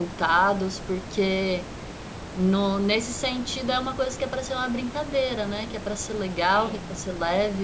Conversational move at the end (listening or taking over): listening